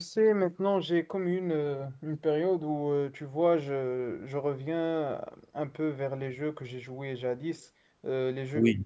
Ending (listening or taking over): listening